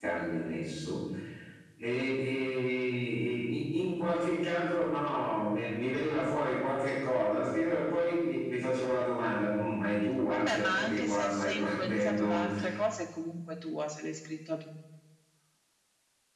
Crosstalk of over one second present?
Yes, from 10.3 s

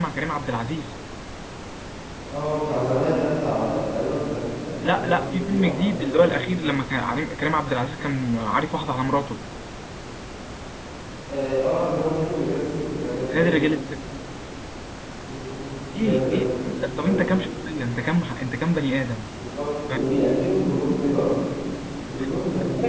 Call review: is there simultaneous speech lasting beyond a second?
Yes, from 4.9 s

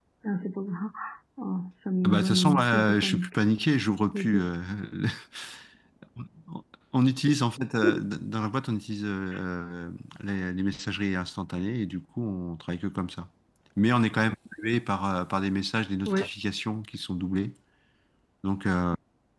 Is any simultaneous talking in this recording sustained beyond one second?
Yes, from 2.0 s

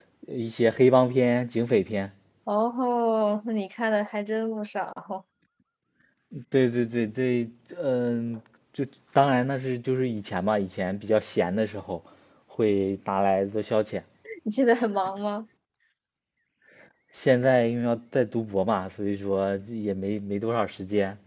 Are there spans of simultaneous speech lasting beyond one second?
No

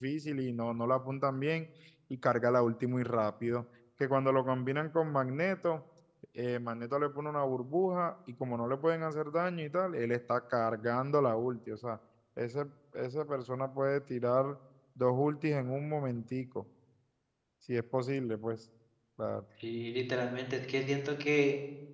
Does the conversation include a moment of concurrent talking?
No

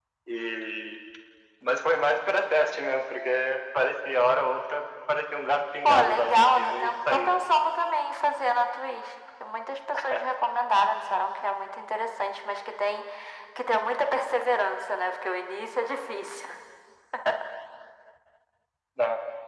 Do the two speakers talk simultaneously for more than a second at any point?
Yes, from 5.8 s

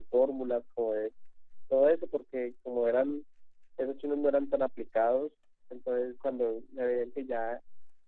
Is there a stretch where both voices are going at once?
No

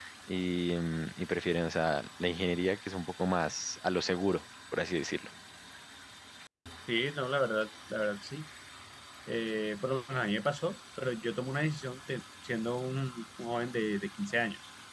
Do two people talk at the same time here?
No

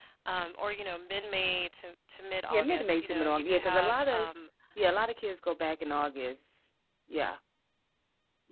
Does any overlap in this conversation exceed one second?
Yes, from 2.5 s

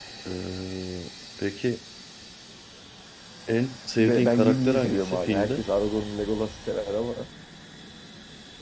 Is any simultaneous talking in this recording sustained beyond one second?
Yes, from 4.0 s

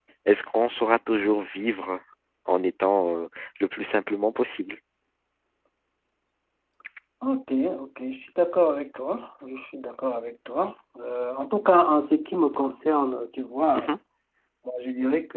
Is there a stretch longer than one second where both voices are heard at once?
No

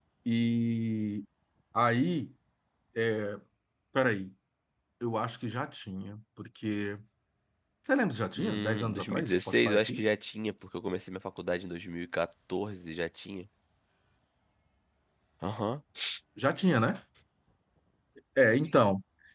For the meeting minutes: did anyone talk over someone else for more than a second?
Yes, from 8.4 s

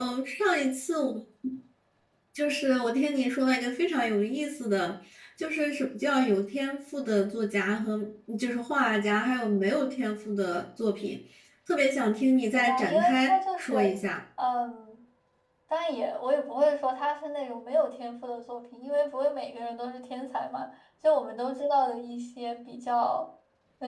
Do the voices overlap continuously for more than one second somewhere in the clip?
Yes, from 12.5 s

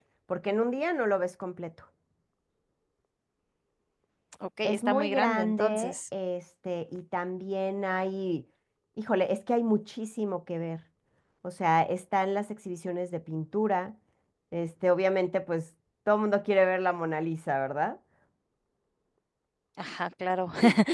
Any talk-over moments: Yes, from 4.6 s

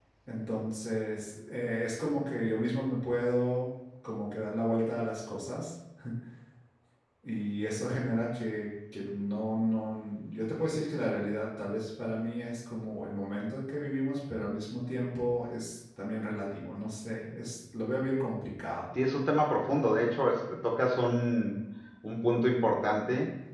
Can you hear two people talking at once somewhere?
No

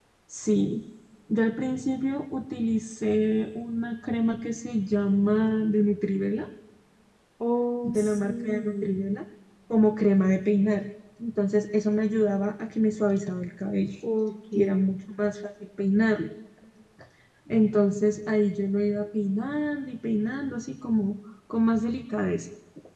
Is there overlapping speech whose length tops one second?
Yes, from 7.8 s

